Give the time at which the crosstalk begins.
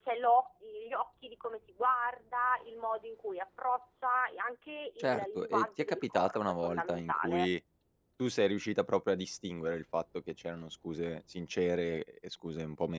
5 s

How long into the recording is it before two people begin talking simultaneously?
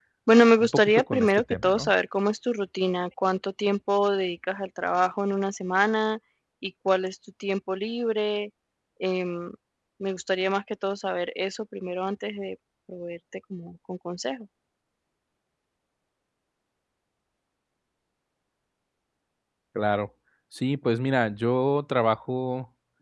1 s

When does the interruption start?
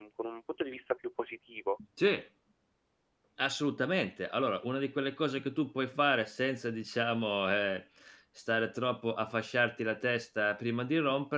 none

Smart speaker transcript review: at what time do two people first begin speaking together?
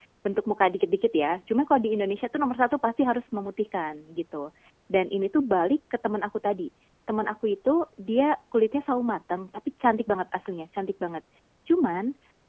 none

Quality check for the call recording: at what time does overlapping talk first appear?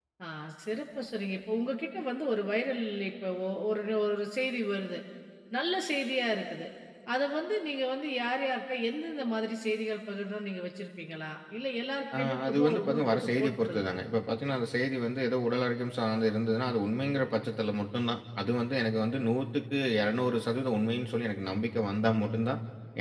12 s

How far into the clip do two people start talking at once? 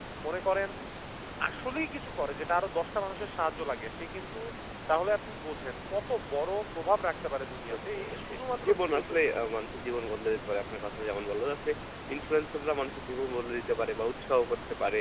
8 s

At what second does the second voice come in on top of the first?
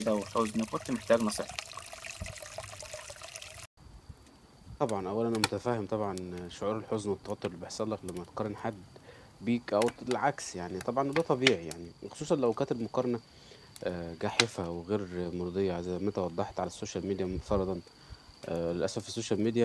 none

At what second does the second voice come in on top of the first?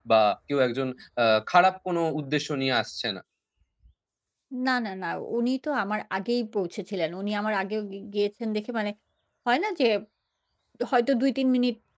none

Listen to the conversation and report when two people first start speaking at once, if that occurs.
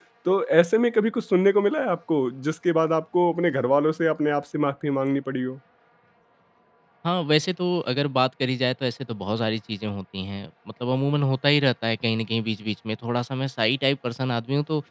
none

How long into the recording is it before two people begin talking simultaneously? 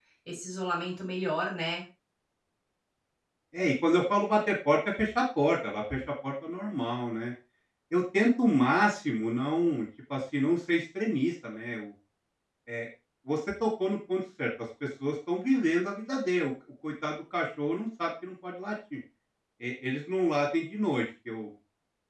none

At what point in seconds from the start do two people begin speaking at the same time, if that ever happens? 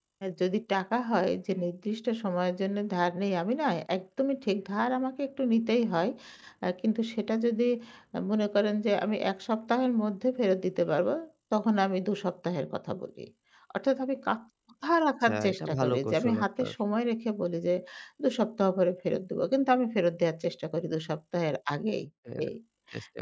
15 s

